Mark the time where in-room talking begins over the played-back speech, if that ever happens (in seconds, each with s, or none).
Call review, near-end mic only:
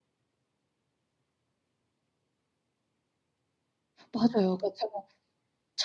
4.1 s